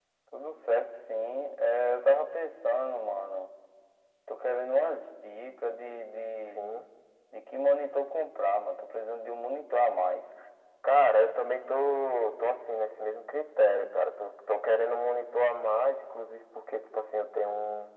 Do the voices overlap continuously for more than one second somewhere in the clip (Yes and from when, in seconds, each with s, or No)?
No